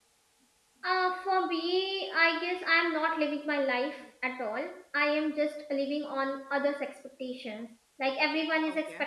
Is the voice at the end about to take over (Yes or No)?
No